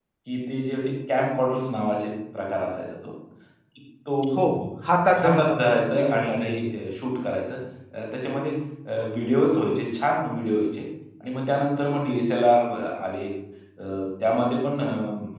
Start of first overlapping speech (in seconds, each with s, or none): 5.2 s